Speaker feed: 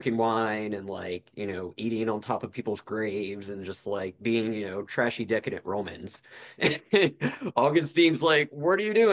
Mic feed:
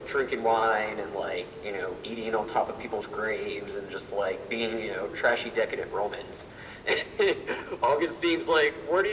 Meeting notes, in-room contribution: none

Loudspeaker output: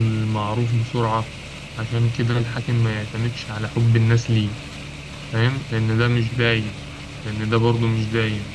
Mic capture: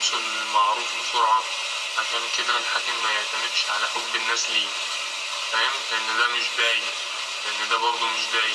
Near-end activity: none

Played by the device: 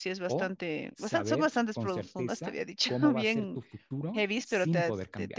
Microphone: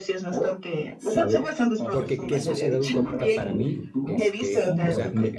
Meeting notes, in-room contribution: present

